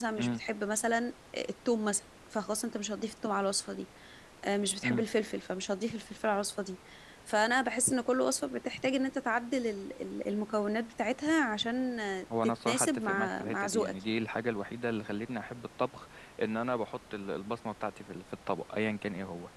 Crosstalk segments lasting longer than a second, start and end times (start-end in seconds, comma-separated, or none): 12.4-13.9